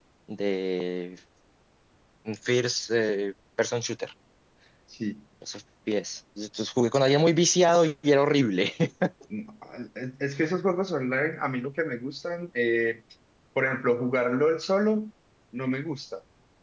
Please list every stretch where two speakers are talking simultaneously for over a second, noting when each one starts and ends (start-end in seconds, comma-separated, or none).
none